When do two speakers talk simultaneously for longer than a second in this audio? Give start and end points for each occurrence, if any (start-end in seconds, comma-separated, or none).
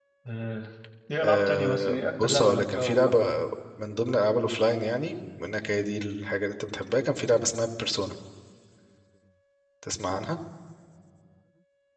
1.2-3.3